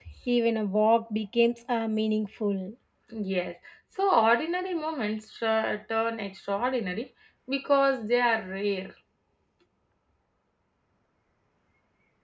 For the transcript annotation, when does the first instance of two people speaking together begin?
none

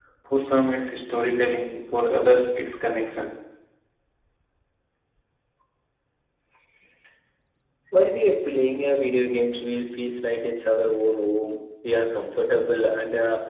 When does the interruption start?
none

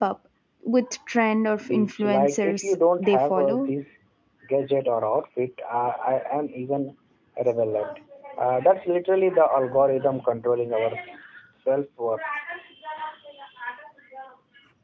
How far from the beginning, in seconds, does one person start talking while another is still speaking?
2 s

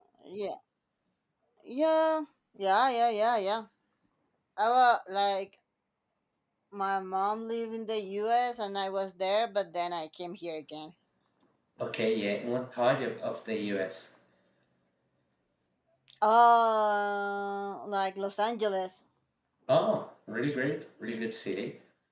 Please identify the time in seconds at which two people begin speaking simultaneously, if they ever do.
none

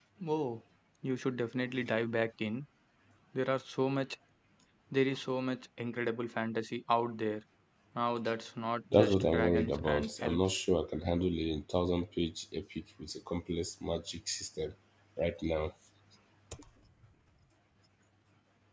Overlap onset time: 9 s

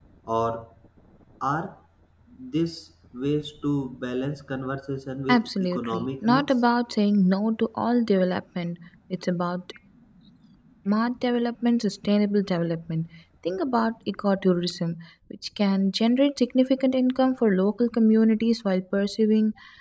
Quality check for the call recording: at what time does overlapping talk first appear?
5 s

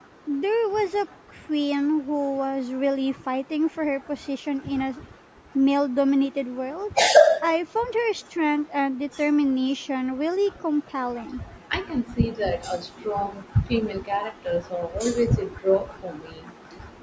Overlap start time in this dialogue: none

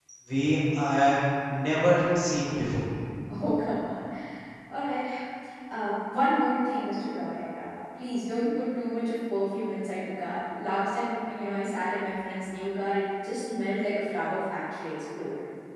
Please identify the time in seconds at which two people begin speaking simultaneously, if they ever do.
none

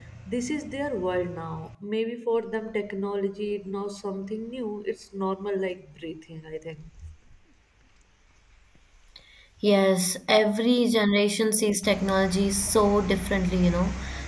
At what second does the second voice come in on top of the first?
none

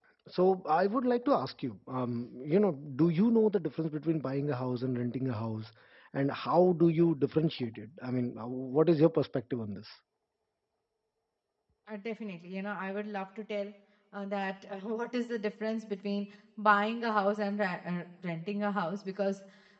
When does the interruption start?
none

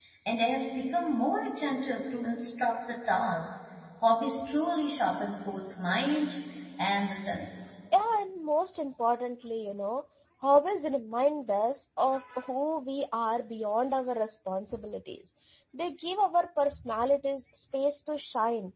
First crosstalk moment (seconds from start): none

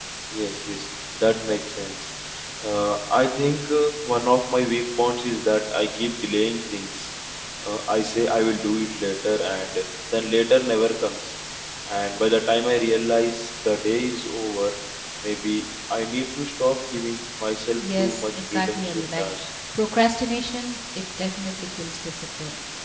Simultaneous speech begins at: 18 s

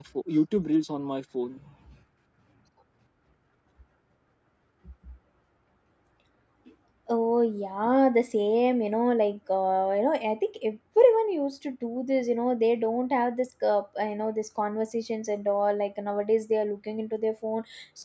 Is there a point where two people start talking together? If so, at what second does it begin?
none

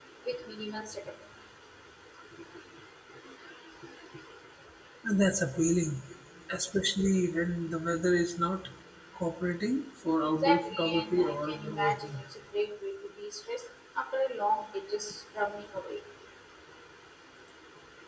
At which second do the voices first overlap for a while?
10 s

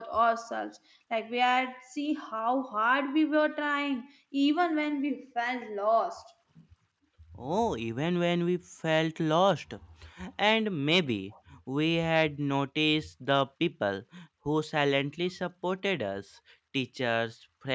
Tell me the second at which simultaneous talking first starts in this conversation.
none

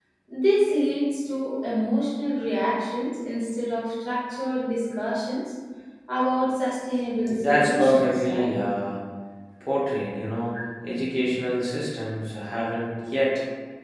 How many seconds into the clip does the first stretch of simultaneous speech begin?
7 s

